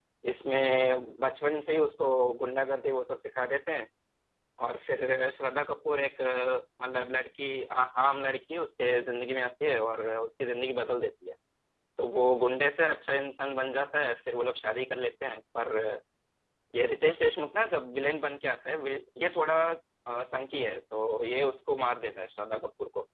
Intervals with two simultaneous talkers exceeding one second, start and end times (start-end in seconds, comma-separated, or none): none